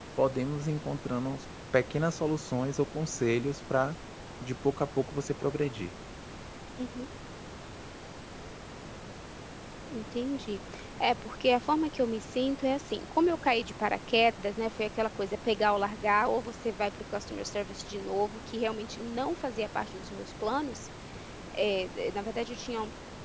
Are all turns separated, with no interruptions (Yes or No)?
Yes